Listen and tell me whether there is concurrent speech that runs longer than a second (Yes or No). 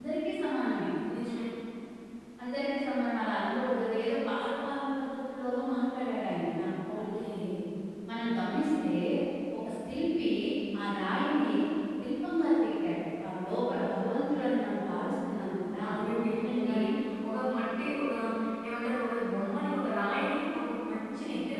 No